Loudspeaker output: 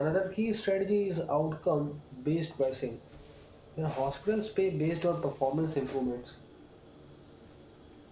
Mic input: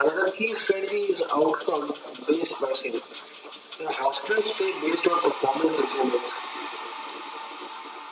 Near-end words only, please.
none

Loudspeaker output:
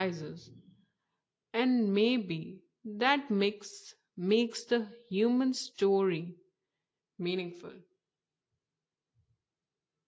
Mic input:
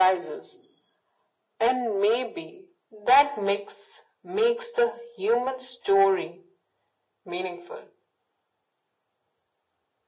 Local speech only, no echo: none

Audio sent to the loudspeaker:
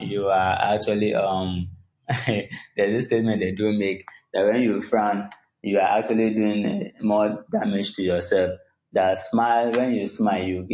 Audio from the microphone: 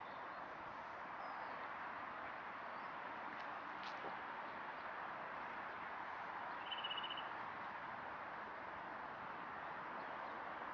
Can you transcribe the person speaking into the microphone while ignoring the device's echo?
none

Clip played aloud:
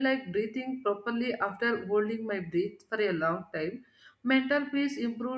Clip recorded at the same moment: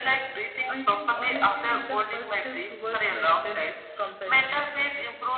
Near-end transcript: I think honesty is the first step towards my self compassion.

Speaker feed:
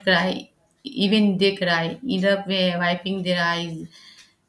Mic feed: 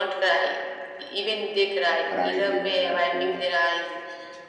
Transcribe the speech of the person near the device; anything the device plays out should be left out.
bride leaving her home,

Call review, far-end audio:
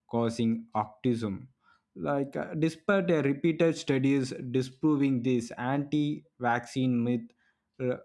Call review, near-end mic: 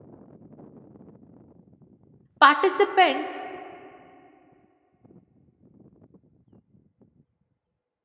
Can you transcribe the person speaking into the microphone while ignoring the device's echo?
participant

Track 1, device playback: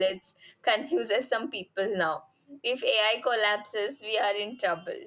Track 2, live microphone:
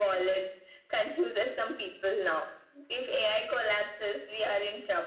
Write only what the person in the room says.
none

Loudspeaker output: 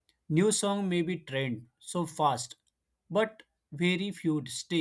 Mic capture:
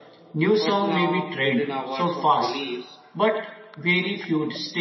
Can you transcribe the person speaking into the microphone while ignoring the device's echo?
but now, within hours of release,

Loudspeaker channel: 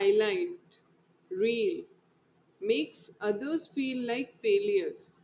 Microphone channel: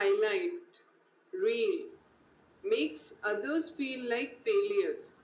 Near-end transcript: none

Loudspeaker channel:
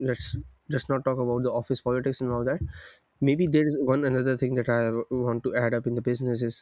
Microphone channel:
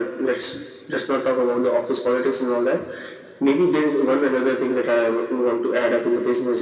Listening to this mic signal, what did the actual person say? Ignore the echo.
none

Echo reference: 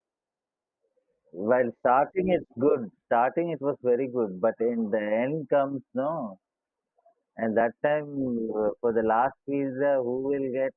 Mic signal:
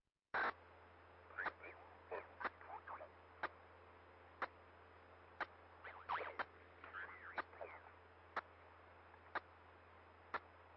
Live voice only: none

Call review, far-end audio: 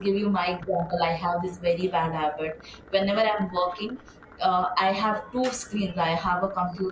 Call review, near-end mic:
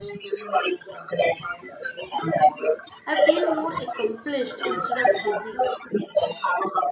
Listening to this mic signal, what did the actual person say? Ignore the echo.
I feel more accomplished instead of busy.

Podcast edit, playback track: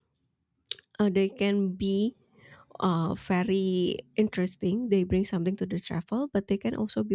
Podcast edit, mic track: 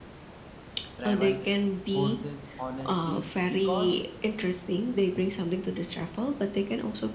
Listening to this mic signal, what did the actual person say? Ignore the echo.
travel forces honesty because

